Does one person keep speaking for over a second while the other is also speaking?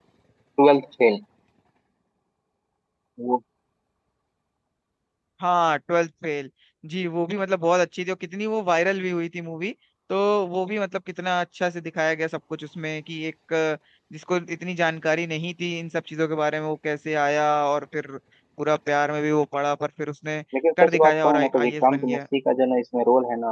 Yes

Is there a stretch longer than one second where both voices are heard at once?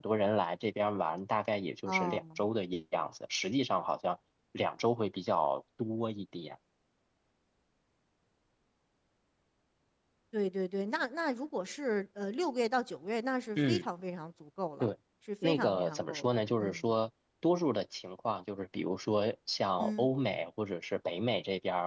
Yes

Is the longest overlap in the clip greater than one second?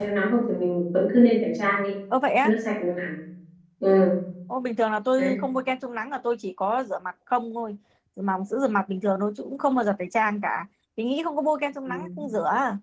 No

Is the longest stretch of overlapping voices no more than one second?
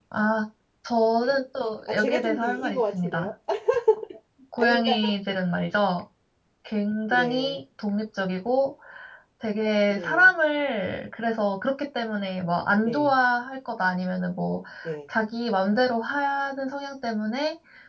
No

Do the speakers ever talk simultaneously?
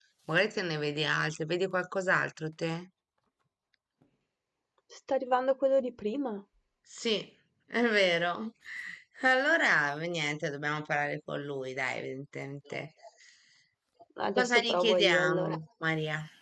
Yes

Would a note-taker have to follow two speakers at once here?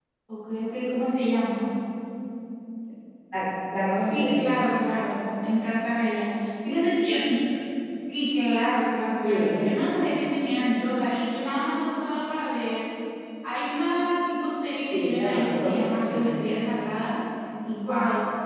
Yes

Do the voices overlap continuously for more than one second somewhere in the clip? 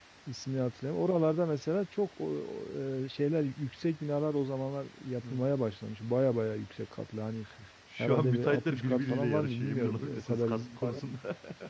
Yes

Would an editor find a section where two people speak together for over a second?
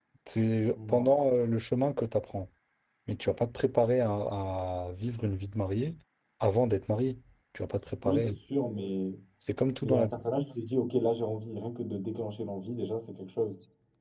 No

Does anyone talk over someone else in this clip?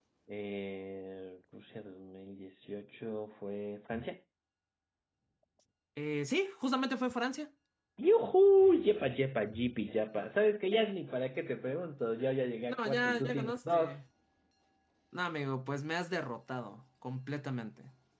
Yes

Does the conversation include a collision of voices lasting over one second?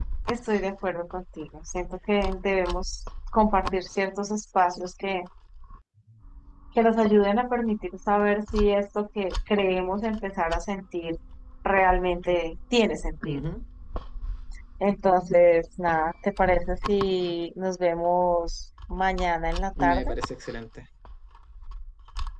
No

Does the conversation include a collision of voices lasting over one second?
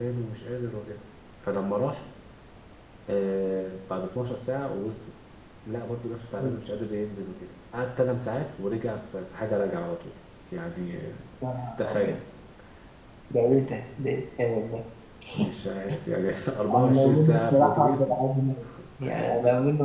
Yes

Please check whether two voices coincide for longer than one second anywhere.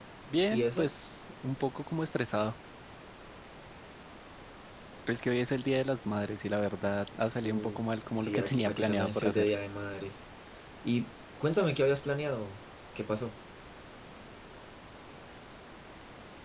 Yes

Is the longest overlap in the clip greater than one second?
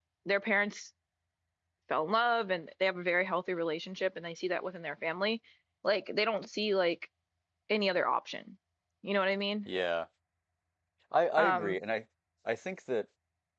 No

